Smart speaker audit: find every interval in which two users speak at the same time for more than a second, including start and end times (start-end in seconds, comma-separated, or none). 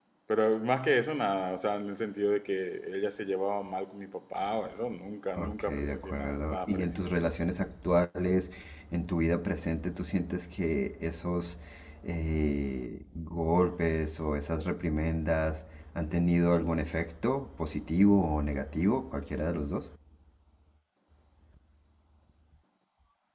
5.3-7.1